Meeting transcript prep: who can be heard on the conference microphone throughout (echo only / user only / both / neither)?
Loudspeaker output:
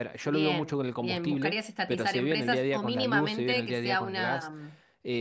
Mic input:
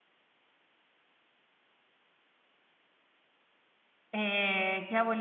user only